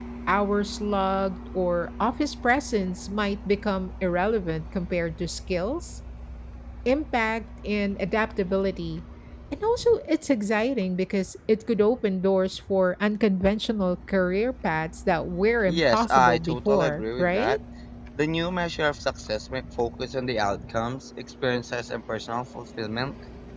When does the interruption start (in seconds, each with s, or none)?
15.7 s